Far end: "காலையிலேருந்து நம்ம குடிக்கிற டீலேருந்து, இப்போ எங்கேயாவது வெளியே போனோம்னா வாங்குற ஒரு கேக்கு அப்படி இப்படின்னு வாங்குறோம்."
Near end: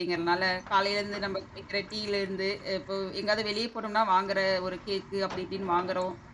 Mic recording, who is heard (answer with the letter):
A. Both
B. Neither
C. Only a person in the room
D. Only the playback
D